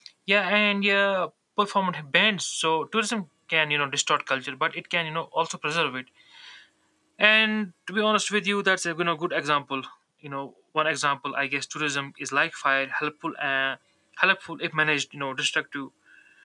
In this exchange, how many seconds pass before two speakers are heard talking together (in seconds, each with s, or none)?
none